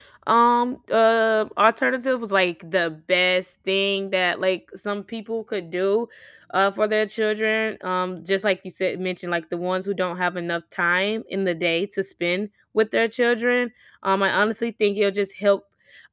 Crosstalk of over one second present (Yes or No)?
No